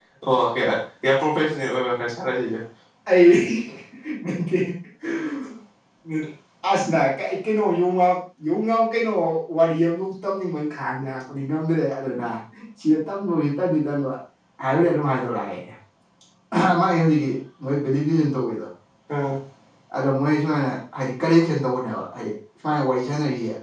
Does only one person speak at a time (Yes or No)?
Yes